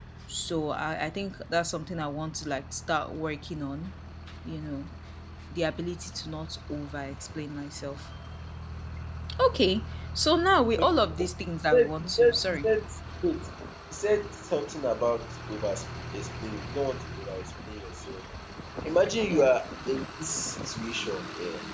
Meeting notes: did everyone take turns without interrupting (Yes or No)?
No